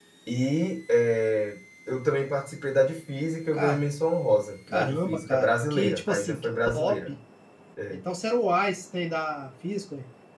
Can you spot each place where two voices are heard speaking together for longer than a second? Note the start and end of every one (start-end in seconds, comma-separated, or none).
4.7-7.1